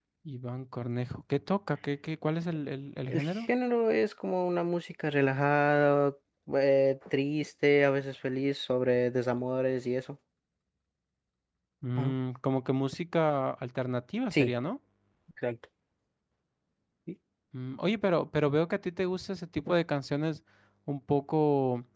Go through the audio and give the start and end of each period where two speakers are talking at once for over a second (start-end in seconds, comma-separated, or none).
none